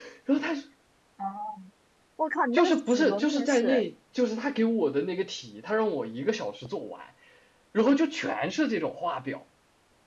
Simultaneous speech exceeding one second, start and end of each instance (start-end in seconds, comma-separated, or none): 2.5-3.8